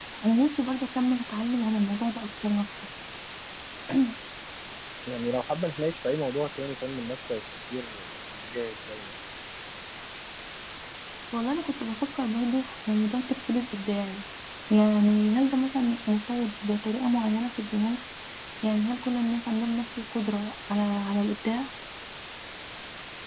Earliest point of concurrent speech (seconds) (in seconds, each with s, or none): none